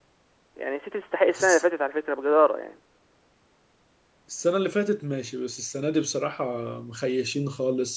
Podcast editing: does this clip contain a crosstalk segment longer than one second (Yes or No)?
No